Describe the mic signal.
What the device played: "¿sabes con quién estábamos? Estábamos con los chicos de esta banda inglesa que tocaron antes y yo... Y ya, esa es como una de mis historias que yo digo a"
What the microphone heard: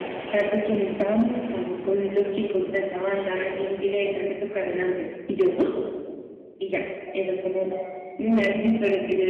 echo only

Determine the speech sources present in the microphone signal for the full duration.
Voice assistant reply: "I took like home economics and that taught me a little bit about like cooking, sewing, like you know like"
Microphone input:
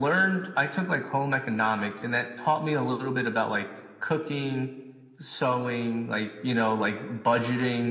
echo only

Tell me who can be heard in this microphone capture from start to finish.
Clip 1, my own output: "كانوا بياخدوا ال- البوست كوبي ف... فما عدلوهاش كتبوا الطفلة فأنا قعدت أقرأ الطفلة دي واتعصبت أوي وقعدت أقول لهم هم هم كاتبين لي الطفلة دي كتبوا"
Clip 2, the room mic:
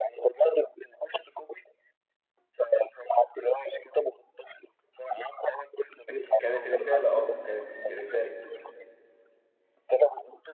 both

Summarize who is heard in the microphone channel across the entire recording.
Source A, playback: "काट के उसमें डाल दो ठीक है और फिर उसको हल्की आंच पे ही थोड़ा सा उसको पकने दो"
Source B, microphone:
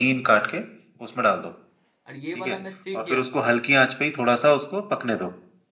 both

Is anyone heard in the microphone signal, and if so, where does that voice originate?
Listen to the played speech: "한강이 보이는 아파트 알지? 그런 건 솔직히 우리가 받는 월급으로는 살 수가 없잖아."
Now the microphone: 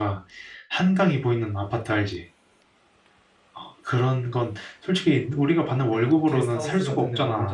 both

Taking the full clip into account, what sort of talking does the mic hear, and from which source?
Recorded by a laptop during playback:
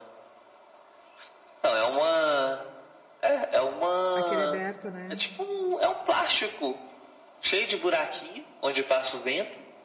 both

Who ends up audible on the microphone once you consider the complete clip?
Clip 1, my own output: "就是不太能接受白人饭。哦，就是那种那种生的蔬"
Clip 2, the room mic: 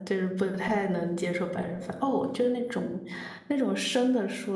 echo only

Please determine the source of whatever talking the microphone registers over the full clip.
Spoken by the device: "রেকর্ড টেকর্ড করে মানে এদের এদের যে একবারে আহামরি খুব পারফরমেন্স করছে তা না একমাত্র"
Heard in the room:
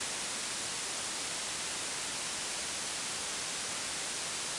neither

